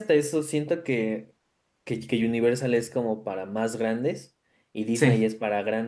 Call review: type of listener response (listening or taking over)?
listening